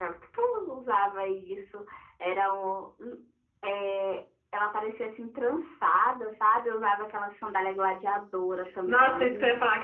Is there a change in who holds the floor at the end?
Yes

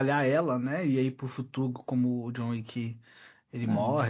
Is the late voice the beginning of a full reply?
No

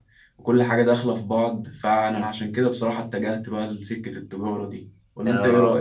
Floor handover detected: Yes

